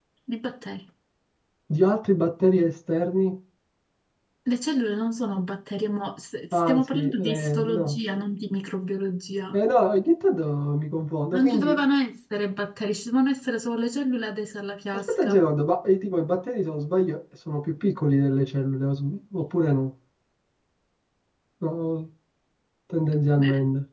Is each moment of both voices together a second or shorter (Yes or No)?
No